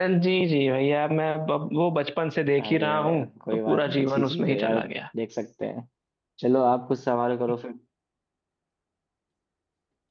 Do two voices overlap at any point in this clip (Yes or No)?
Yes